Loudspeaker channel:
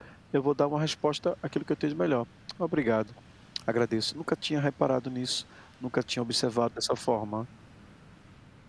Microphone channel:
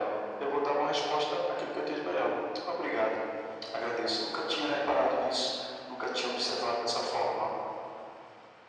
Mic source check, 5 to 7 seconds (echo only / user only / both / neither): echo only